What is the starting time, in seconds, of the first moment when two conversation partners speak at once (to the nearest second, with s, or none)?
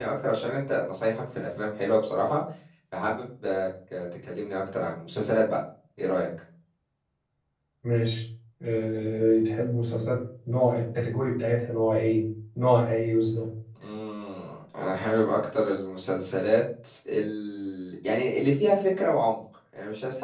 none